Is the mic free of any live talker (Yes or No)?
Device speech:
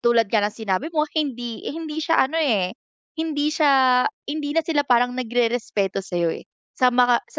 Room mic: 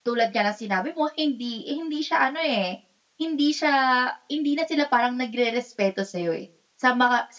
Yes